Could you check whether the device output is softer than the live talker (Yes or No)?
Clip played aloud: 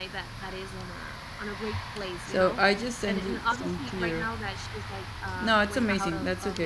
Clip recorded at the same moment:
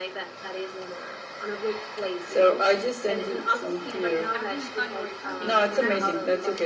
No